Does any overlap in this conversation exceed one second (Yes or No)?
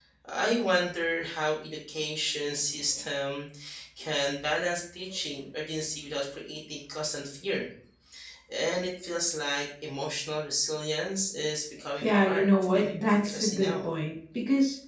Yes